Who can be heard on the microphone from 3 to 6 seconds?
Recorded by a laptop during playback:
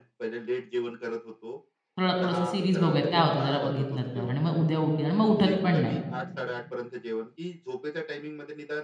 both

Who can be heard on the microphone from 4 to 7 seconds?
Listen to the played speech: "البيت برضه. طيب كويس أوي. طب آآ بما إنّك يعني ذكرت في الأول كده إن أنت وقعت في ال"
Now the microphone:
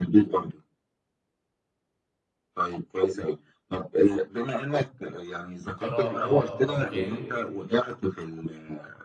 both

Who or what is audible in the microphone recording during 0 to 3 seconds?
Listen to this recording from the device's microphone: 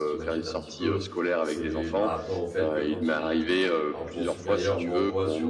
both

